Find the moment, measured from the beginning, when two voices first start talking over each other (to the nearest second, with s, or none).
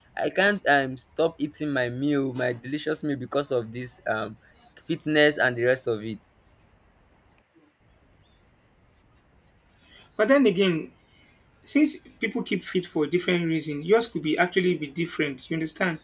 none